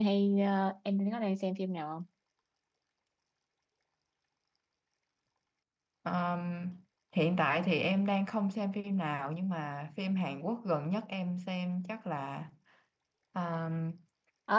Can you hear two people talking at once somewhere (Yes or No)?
No